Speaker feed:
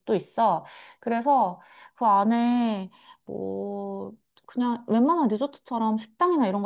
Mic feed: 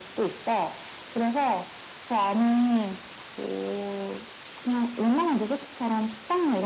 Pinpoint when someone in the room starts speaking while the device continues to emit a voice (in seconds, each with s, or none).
none